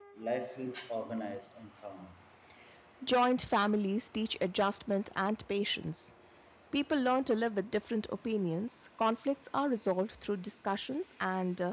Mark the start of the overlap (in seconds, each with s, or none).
none